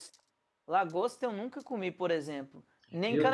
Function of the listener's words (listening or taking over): listening